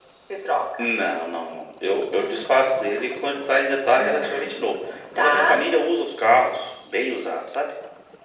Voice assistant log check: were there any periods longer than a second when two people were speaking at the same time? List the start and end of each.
none

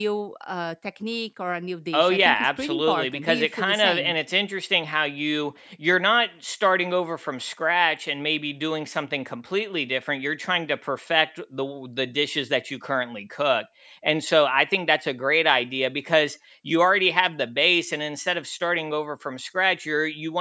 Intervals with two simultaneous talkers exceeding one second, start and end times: 1.9-4.2

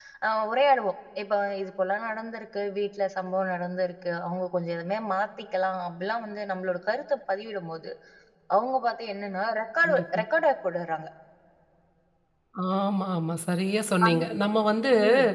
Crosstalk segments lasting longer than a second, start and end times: none

